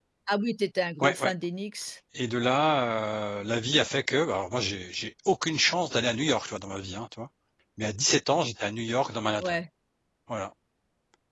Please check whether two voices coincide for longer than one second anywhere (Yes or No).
No